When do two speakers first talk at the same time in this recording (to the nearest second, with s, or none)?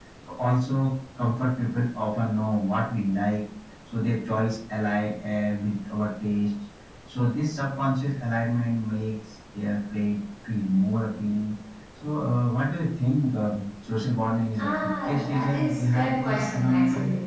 15 s